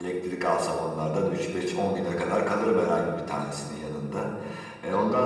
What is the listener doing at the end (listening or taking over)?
listening